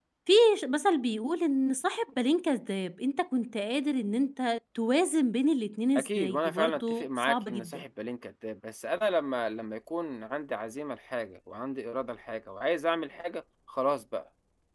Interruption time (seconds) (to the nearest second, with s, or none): 6 s